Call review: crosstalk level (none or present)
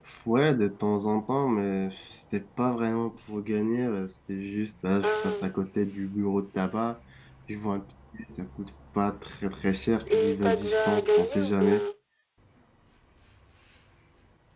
present